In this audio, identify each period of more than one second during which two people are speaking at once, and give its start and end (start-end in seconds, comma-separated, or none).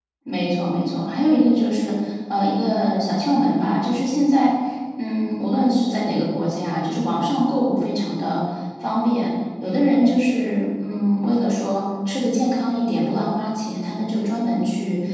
none